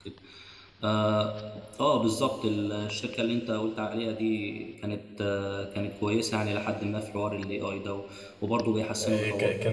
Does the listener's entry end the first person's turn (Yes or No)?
Yes